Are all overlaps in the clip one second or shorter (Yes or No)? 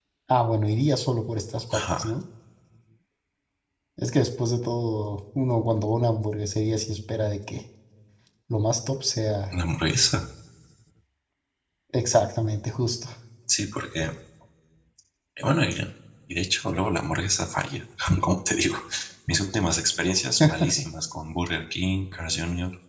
Yes